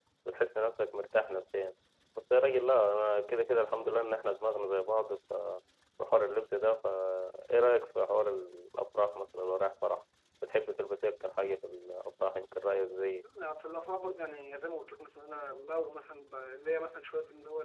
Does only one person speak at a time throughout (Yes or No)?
Yes